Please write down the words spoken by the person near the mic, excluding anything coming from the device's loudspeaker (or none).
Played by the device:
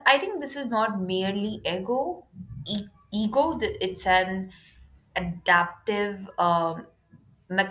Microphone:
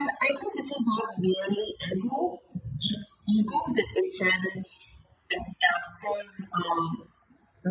none